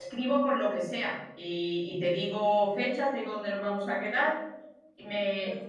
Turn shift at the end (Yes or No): No